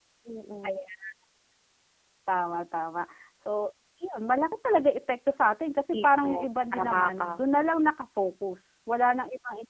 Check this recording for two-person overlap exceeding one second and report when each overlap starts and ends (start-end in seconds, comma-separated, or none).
5.9-7.4